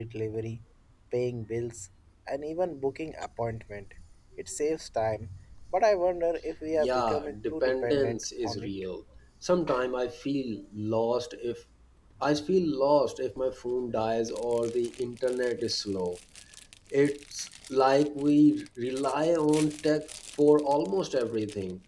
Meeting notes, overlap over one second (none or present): present